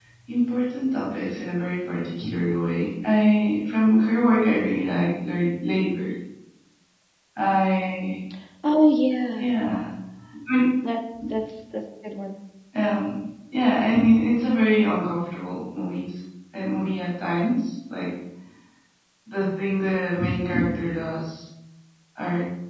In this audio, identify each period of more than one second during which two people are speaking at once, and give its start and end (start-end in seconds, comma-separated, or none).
none